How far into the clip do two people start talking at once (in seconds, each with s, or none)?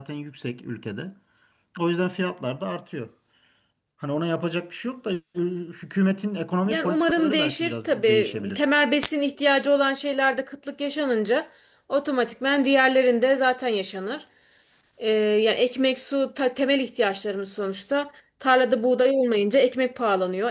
6.7 s